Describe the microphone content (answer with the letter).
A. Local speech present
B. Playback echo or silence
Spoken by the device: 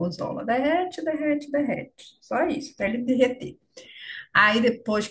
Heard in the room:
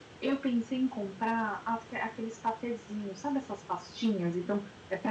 A